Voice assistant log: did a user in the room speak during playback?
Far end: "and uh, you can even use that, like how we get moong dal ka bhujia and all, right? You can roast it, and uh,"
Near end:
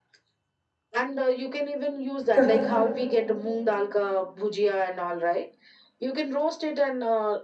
Yes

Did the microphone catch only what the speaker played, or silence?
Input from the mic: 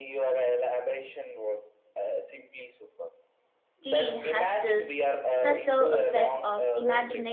No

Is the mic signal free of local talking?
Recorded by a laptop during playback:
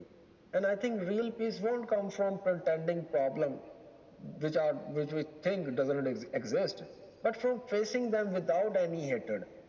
Yes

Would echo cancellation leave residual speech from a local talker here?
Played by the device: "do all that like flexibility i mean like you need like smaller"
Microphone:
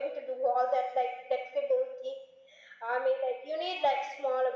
No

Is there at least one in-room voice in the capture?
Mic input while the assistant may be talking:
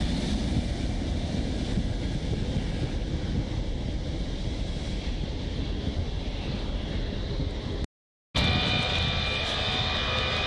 No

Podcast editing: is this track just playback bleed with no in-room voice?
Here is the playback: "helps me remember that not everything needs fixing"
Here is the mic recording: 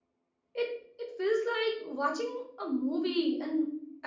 No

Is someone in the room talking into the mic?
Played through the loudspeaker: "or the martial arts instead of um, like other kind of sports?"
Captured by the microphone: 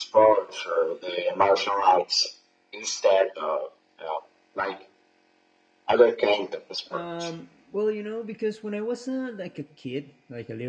Yes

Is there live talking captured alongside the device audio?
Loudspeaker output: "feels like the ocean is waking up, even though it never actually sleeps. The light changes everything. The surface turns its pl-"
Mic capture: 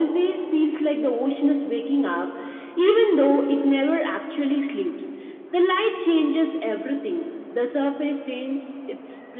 No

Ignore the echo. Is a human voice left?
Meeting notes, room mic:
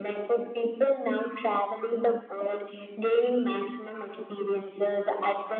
No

